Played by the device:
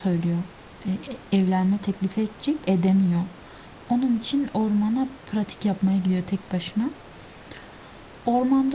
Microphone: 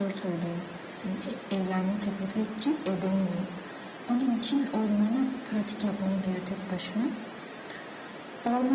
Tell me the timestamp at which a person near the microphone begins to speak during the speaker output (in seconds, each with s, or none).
none